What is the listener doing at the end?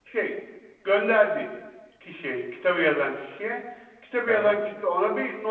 listening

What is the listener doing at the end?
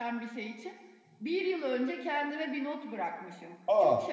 listening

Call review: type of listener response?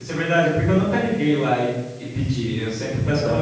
listening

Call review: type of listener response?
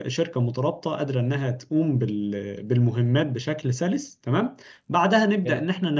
listening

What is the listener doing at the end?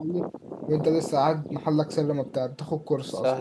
taking over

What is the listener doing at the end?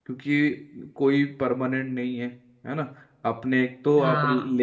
listening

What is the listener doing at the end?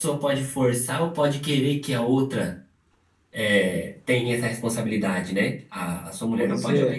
listening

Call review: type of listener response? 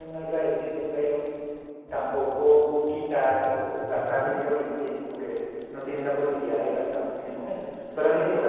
listening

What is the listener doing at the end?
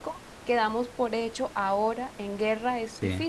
taking over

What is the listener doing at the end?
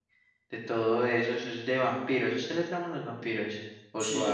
taking over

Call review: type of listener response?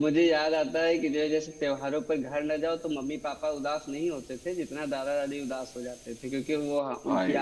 listening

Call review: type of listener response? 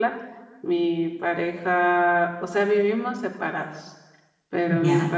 listening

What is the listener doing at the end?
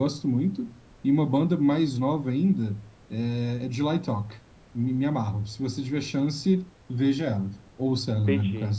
taking over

